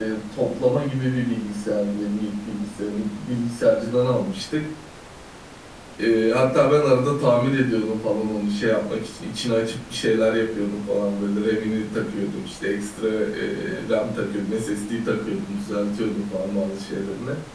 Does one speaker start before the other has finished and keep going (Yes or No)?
No